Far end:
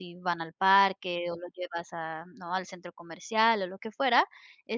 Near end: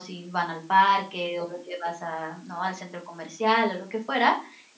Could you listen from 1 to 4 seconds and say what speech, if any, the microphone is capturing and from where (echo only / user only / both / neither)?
echo only